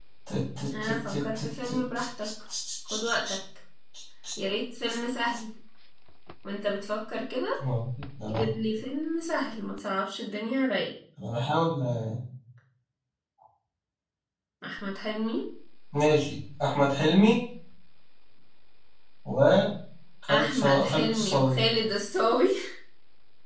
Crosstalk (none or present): present